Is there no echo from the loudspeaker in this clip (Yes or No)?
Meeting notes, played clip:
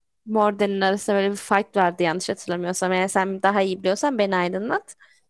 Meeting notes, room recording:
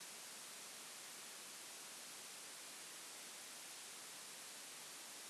Yes